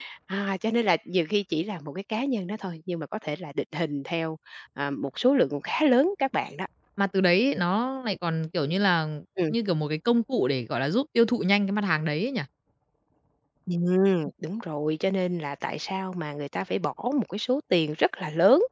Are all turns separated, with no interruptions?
Yes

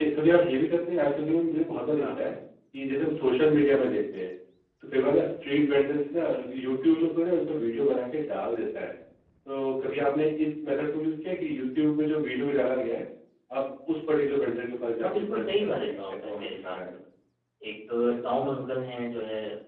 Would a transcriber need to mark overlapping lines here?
Yes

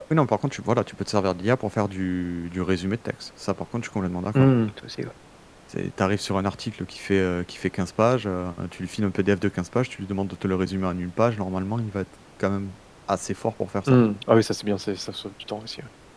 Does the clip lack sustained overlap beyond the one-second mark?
Yes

